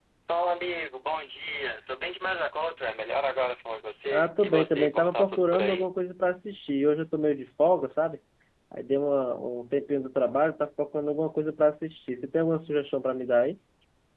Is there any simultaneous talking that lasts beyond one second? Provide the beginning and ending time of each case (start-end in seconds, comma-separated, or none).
4.1-5.9